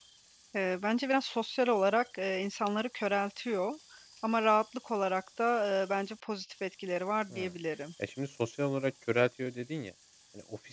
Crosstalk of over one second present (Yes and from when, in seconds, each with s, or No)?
No